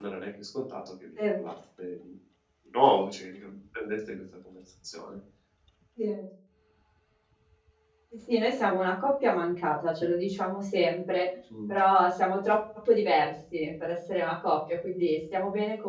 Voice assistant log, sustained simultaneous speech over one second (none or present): none